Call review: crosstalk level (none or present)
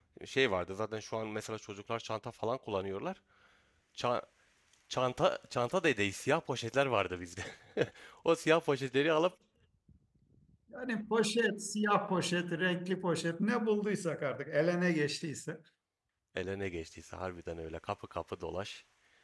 none